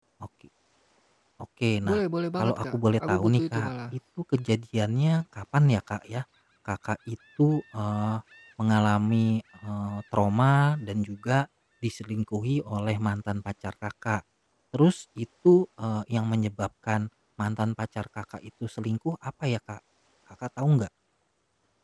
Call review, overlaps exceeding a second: present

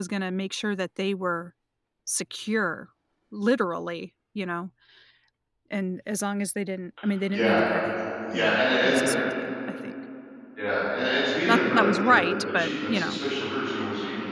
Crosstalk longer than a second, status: present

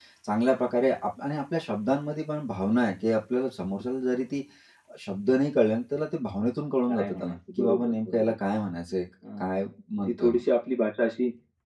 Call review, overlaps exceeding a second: present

